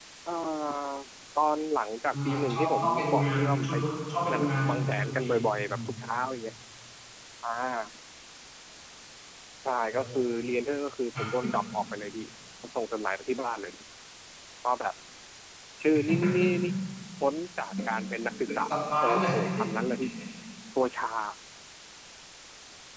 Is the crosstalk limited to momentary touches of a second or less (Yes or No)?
No